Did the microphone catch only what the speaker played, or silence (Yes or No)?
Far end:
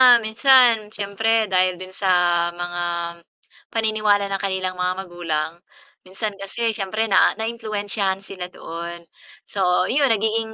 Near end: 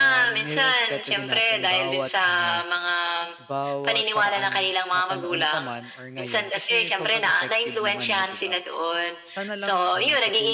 No